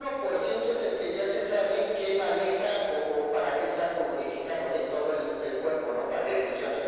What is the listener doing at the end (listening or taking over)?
taking over